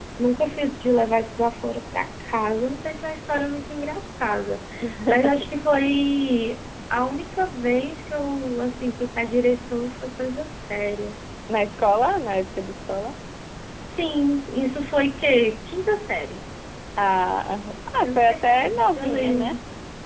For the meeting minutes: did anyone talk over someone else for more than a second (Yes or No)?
Yes